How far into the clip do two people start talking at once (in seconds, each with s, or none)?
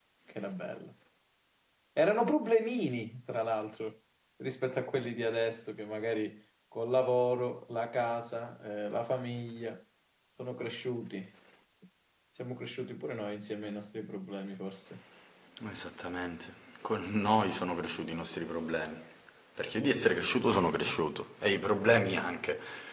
none